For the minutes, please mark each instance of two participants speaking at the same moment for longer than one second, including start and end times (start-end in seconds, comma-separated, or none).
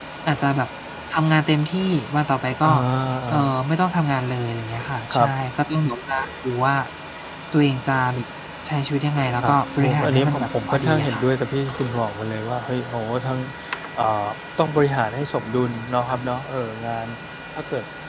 9.4-11.3